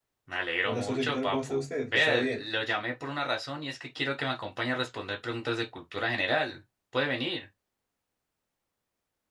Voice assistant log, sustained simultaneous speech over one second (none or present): present